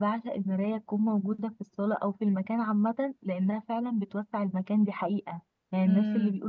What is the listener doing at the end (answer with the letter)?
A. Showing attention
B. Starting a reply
A